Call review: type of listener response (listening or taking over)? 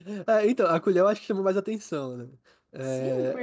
taking over